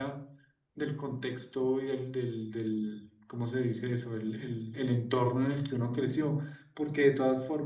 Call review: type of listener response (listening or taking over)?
listening